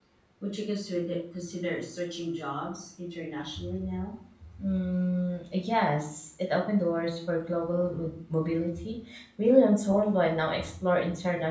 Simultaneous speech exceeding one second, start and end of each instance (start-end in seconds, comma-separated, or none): none